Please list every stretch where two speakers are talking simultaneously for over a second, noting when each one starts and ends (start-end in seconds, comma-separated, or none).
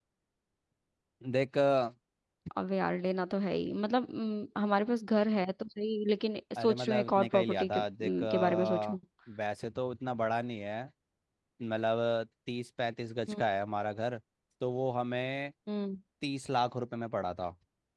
6.6-9.0